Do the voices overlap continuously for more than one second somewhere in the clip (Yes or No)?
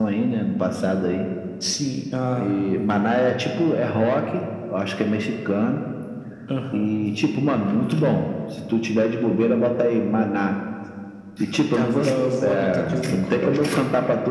Yes